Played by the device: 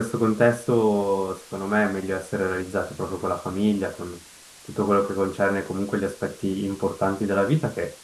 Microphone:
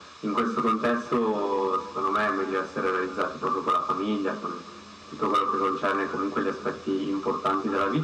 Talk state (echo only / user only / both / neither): echo only